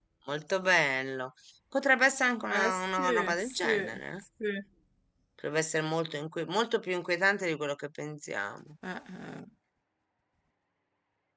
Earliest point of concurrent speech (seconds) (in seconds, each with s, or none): 2.4 s